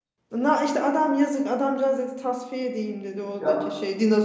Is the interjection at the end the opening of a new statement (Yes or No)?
No